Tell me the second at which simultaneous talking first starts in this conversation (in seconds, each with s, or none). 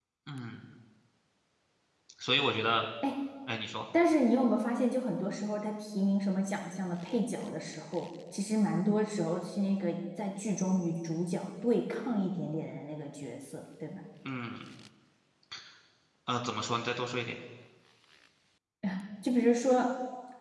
none